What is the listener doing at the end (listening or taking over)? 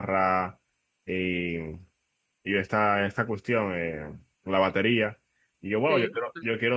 listening